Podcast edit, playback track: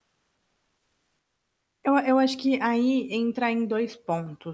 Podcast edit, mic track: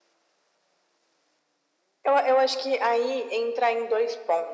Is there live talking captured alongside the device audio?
No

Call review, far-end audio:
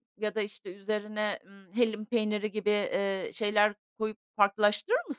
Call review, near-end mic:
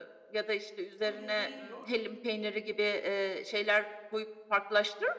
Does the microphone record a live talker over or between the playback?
Yes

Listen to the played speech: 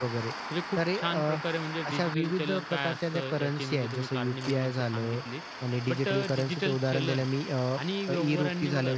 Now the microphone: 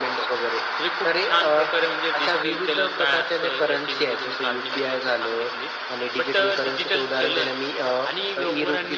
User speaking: No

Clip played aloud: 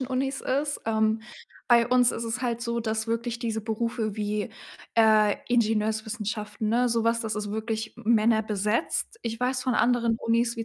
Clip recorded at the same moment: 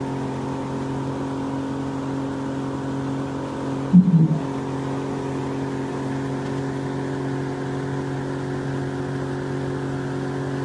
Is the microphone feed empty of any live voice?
No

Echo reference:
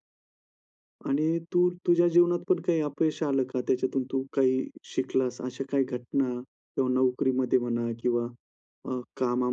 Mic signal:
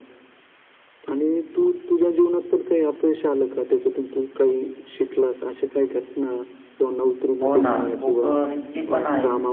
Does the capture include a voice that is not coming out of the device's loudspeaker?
Yes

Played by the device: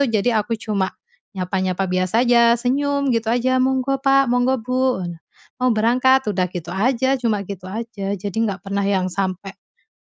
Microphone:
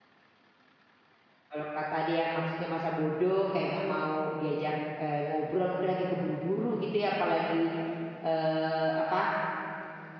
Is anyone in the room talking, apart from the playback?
Yes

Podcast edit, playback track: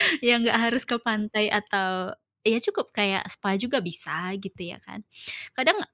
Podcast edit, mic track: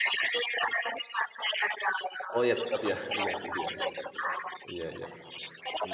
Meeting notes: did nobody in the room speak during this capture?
No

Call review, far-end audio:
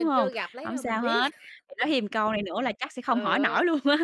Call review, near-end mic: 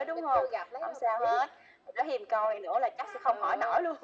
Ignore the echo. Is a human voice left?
No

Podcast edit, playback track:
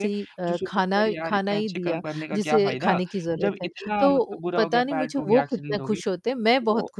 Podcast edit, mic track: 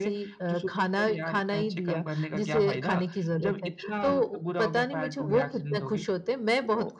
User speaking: No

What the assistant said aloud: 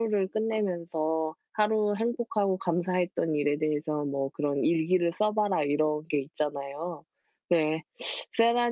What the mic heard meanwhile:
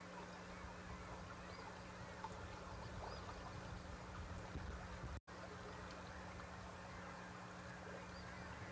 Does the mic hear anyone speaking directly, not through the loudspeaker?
No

